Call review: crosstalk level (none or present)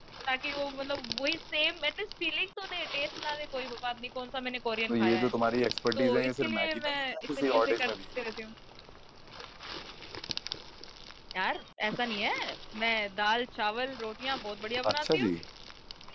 present